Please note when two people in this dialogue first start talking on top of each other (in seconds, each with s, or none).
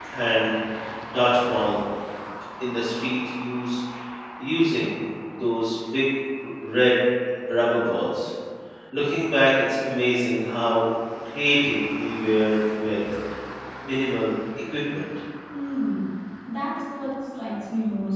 none